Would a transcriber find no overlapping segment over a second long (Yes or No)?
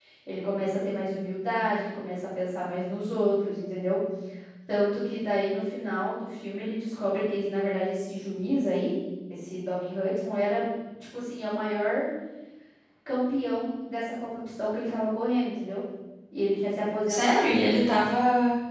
Yes